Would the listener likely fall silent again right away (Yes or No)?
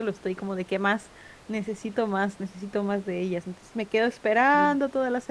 Yes